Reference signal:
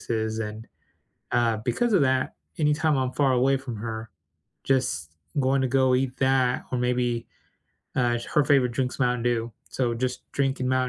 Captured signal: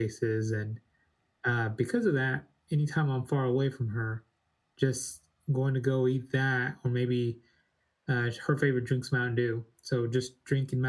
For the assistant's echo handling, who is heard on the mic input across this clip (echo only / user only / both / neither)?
echo only